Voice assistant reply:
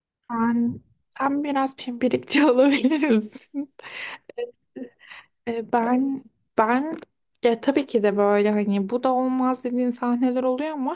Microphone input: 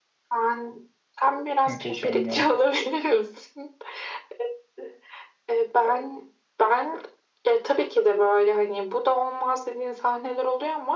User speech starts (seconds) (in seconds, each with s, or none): 1.6 s